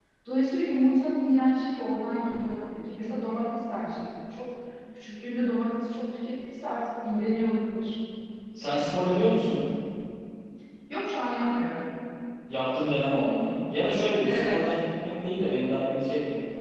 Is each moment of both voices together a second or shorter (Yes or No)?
Yes